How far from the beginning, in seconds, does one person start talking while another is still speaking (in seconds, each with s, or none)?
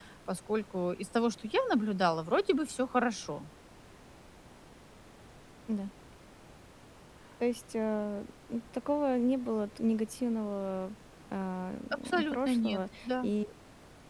12.1 s